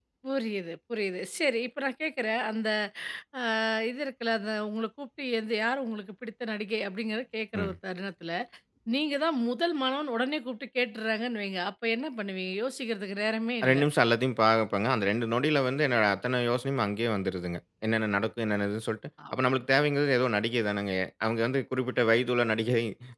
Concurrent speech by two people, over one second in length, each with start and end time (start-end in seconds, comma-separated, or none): none